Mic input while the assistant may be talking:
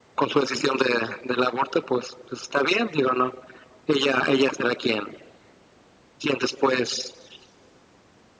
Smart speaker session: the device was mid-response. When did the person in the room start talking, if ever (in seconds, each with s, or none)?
none